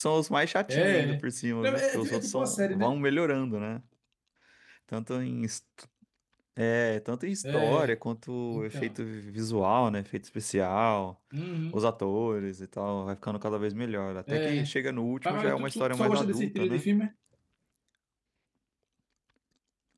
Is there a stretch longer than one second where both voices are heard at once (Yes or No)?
Yes